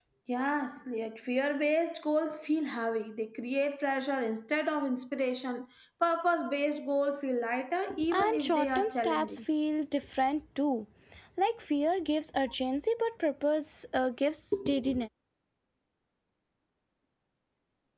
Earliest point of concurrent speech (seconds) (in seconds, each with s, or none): 7.9 s